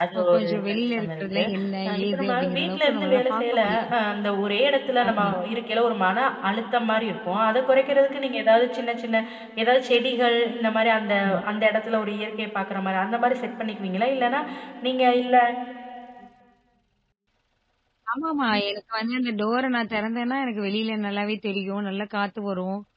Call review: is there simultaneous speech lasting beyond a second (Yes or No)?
Yes